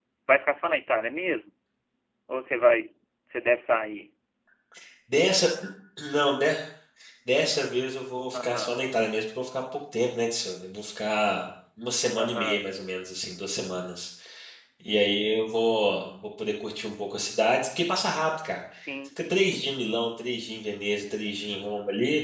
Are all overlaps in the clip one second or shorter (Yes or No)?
Yes